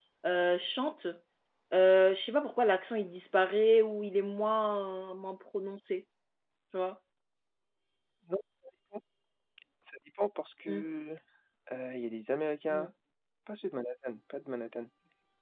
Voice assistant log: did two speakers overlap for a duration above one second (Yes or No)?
No